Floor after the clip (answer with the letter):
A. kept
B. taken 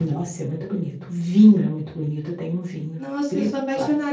B